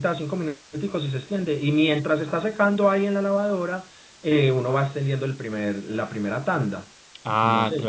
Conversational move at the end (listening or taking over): taking over